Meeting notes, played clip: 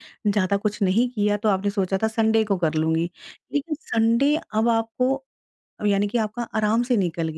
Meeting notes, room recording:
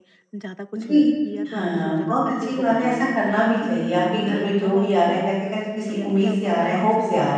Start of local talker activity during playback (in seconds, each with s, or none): 0.8 s